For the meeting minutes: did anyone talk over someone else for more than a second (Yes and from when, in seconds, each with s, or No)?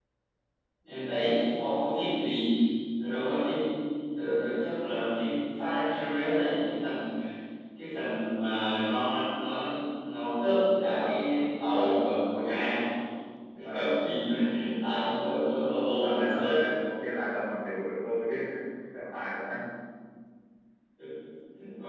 Yes, from 10.8 s